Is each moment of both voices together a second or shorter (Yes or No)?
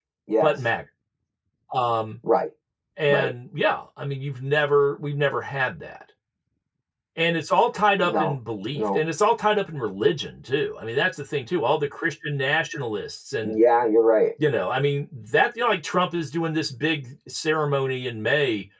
Yes